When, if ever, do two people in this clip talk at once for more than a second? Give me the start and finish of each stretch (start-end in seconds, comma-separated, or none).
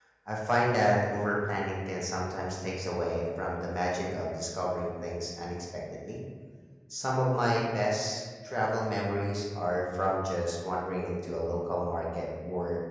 none